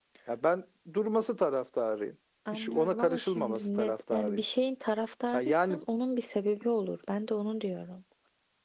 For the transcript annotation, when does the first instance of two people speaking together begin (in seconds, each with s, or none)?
2.5 s